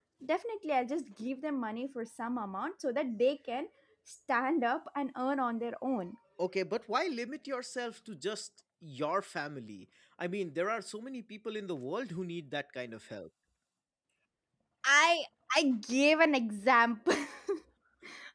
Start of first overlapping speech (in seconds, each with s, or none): none